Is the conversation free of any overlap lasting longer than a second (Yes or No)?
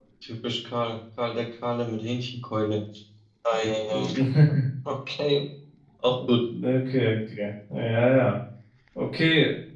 Yes